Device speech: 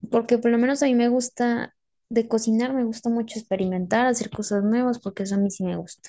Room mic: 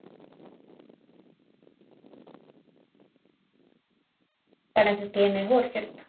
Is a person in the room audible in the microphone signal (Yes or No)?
Yes